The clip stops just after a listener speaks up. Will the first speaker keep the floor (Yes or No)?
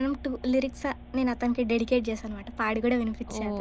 No